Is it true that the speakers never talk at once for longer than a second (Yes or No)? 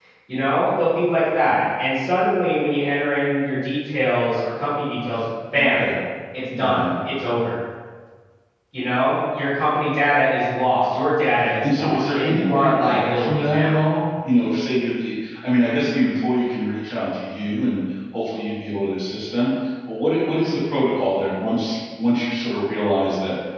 No